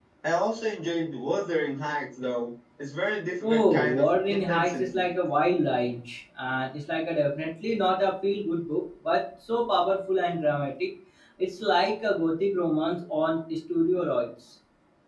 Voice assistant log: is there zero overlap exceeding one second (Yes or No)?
No